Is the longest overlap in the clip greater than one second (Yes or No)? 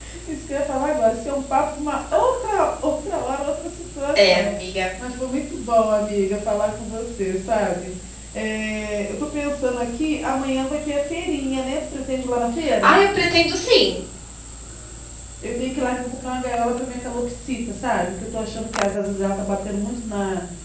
No